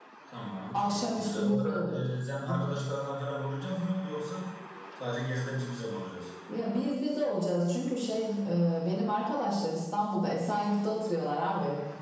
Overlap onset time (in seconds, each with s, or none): 0.7 s